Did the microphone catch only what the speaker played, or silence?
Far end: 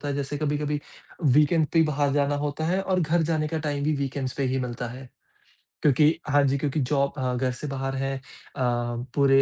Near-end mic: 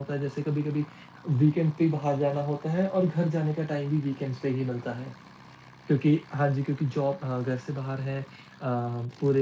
Yes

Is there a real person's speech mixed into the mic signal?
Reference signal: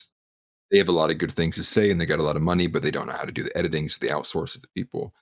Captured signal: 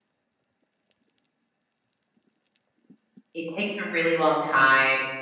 Yes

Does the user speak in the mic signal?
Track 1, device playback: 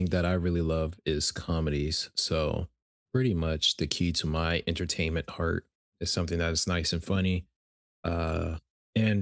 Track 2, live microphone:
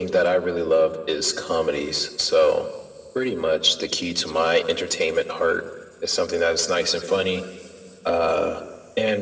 No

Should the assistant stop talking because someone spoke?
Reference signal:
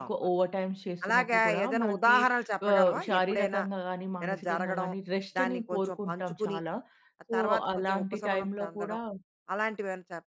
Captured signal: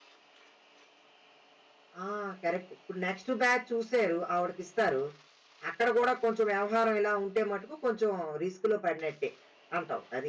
Yes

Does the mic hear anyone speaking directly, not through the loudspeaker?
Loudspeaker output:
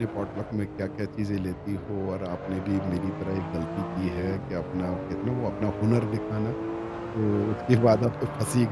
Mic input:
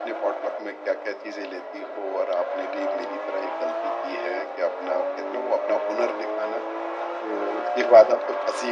No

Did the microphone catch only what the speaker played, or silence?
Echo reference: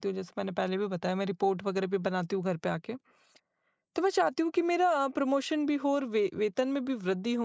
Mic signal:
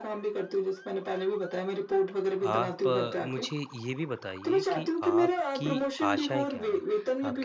No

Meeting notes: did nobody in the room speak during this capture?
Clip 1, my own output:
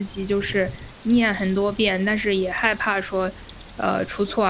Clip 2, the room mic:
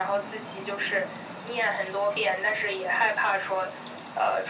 Yes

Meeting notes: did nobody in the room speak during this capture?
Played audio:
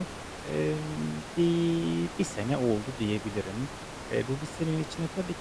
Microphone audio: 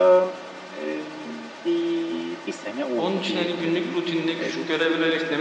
No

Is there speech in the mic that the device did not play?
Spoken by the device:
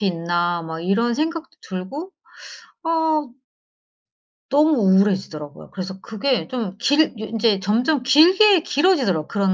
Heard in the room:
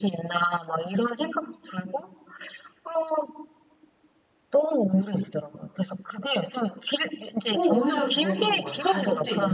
Yes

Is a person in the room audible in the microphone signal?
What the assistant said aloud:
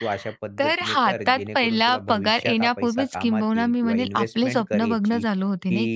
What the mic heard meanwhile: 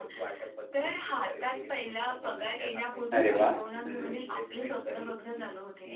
Yes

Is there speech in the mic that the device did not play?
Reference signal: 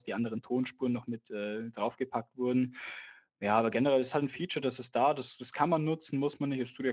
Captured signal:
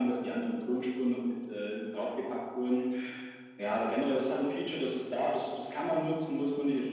No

